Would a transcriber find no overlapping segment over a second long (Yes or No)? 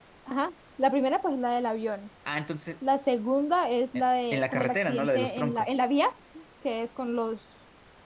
No